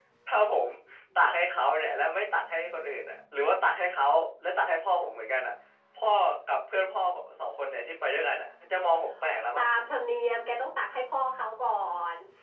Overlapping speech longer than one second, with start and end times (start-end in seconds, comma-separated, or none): none